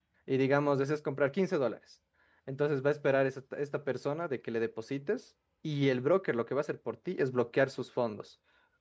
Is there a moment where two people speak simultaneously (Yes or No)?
No